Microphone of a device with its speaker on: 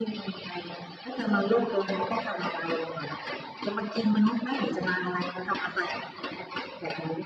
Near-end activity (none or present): none